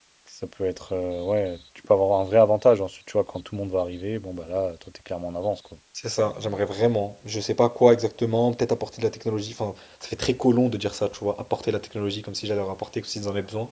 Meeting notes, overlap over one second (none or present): none